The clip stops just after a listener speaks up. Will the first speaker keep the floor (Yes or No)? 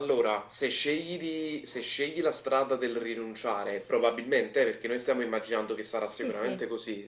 Yes